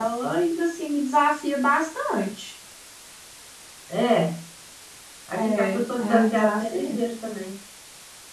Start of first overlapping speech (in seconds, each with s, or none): 5.4 s